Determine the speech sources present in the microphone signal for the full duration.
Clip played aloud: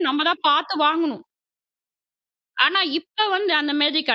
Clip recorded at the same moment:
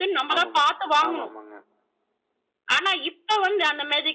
both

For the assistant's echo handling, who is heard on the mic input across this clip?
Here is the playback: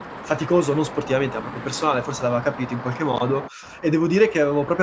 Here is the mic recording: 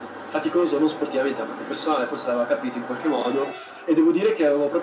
echo only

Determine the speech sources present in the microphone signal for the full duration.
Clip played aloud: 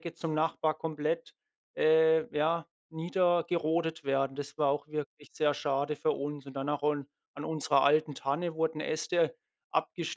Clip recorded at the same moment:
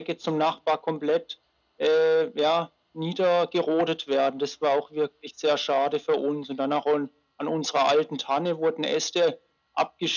echo only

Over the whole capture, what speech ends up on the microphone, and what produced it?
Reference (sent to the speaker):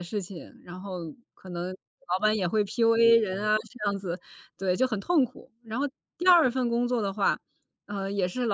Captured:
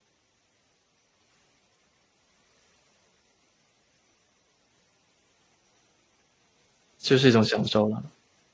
user only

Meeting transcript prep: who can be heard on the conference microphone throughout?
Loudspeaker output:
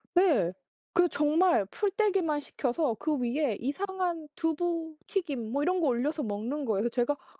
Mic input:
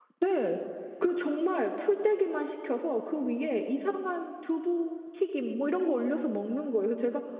echo only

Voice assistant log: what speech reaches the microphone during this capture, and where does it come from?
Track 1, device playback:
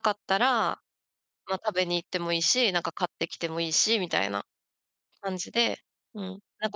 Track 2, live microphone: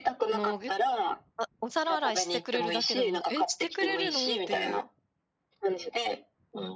both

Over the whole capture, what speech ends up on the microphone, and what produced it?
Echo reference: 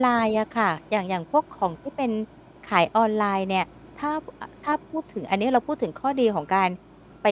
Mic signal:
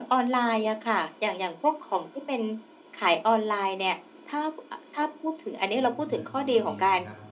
both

